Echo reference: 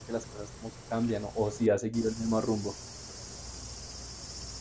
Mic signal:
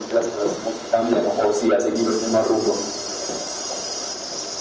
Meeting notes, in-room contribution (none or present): none